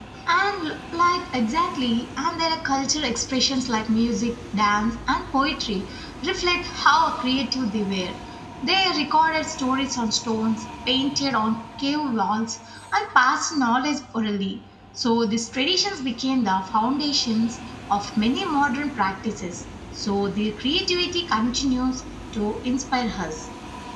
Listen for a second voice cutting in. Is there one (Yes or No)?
No